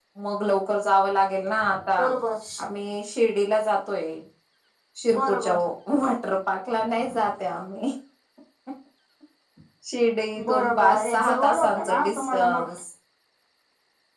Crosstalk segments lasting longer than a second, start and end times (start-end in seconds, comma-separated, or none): 10.4-12.6